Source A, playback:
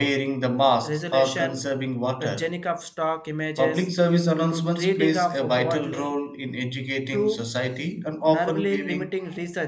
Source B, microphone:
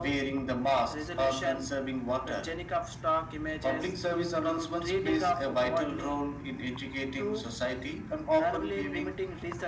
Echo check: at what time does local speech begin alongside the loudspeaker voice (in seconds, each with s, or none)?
none